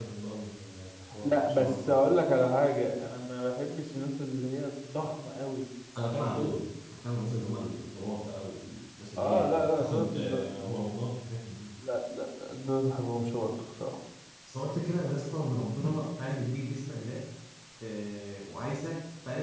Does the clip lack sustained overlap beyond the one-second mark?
No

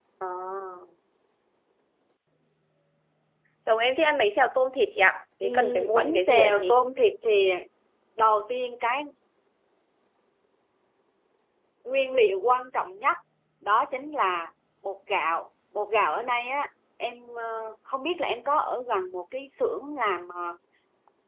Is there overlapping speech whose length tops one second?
Yes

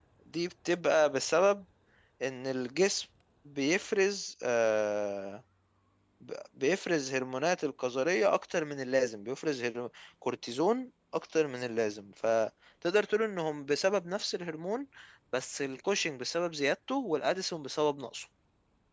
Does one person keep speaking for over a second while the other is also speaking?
No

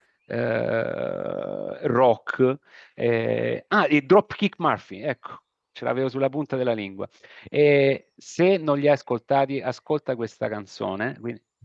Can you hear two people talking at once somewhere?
No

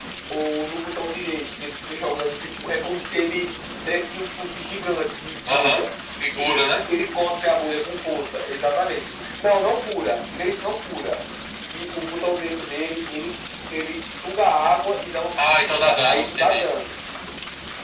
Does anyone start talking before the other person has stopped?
Yes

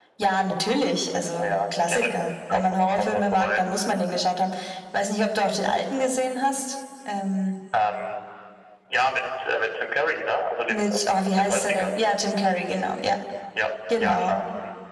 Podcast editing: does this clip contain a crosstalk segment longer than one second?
Yes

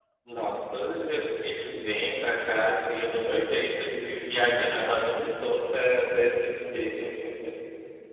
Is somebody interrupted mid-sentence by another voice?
No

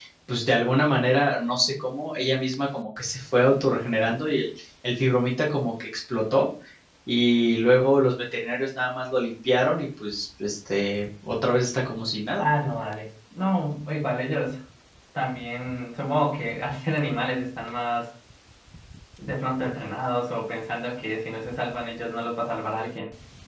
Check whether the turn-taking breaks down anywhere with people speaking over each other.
No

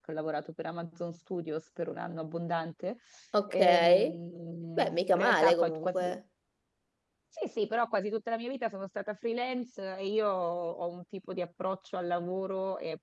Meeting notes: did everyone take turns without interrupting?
No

